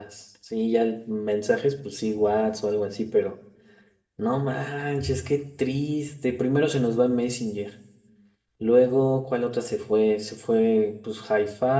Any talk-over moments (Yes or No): No